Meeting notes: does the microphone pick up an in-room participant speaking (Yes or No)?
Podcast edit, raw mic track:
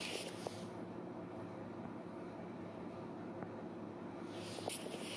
No